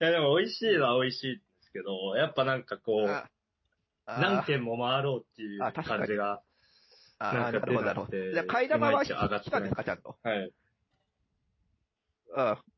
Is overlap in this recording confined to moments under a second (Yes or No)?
No